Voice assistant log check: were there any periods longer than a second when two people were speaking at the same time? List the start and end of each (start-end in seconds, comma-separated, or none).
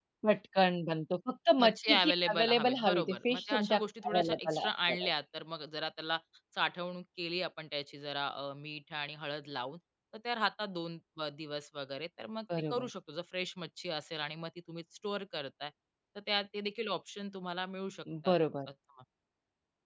1.6-5.1